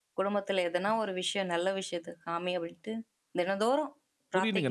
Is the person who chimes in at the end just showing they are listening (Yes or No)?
No